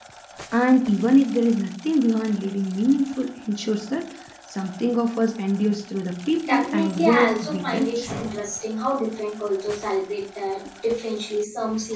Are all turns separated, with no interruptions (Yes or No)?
No